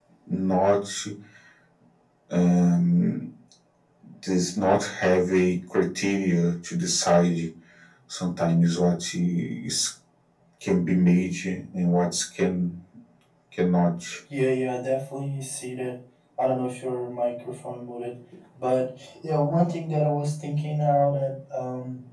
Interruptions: none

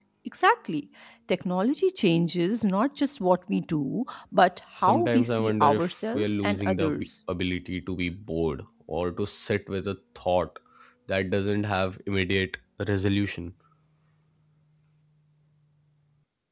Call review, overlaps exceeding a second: present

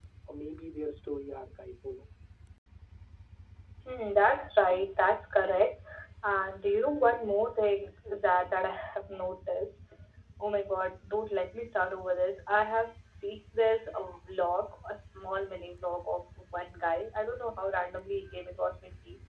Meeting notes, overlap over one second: none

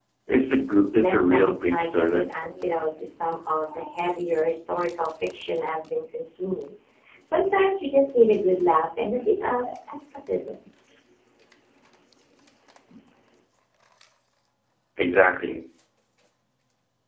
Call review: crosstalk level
present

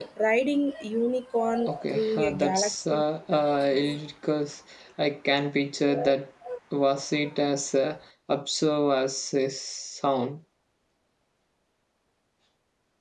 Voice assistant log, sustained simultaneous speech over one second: present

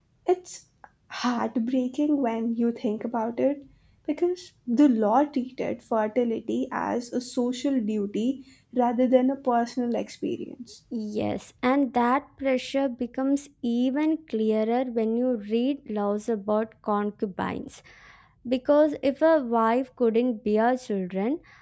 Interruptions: none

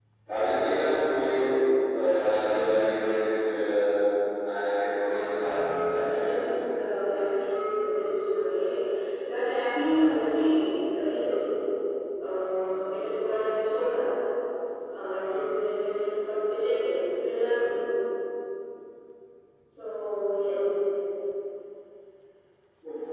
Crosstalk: present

